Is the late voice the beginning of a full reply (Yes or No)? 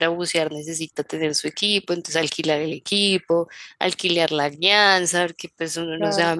No